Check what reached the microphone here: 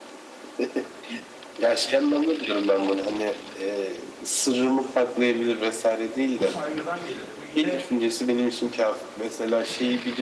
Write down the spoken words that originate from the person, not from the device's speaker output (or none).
Bu saygıdan gelir. Bu yine